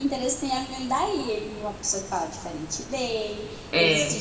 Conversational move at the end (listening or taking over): listening